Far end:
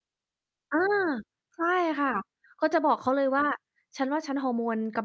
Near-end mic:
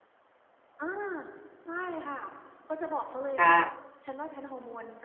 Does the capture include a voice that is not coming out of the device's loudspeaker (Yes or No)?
Yes